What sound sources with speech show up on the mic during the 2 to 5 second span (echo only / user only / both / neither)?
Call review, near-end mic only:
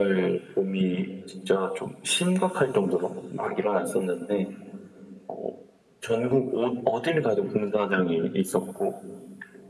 echo only